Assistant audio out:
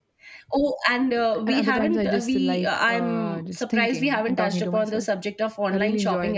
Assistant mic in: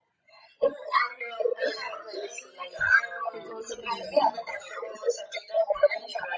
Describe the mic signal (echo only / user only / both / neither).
both